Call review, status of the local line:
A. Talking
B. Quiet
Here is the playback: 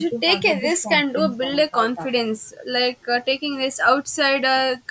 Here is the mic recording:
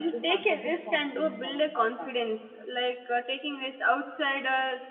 B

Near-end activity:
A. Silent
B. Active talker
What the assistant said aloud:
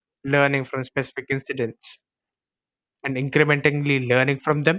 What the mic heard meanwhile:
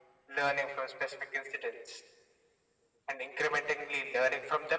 A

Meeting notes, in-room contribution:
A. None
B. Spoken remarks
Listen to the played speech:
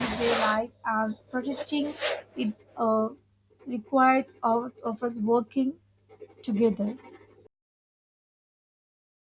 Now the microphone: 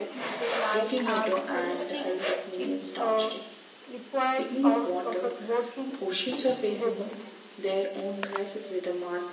B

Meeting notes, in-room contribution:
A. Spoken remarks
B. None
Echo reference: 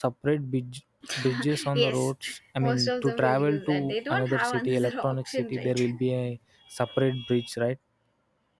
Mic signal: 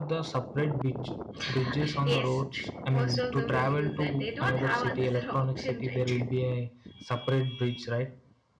B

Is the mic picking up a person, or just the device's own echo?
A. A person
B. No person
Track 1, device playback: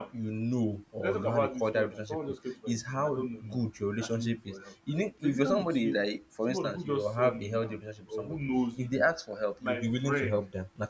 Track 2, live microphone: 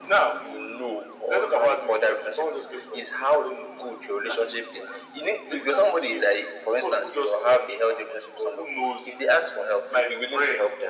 B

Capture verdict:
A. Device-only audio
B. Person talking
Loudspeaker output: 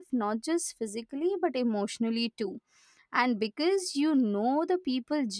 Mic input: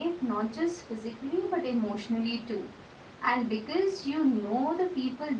A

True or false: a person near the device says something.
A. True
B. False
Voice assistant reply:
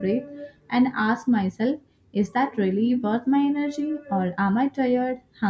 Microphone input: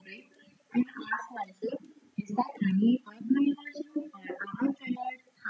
B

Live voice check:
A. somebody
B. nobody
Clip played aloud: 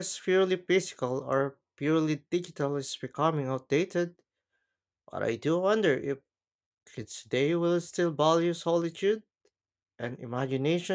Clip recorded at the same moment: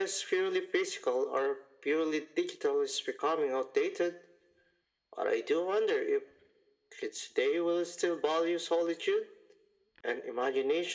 B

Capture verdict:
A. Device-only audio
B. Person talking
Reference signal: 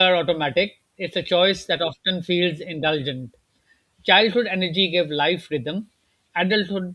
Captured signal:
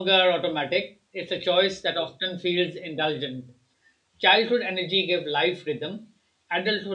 A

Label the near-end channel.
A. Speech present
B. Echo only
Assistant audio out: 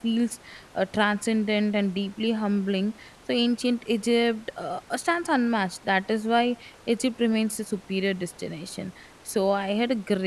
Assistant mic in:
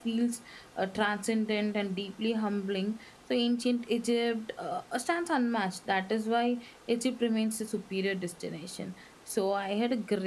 B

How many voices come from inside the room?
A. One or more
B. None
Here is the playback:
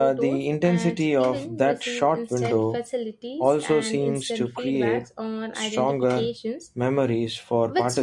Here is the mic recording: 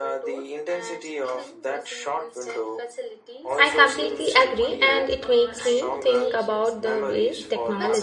A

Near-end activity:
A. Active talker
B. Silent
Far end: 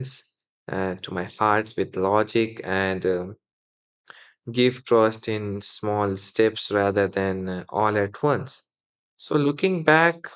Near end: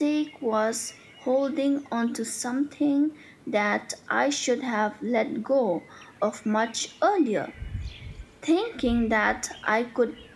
A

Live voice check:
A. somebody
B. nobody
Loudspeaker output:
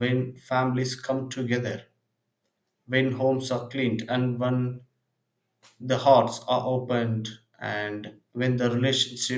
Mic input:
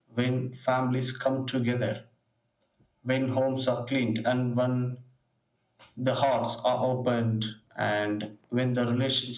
B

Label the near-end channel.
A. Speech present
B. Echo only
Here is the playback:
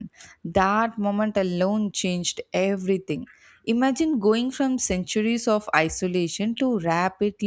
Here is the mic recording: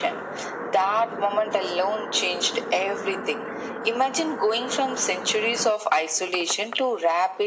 B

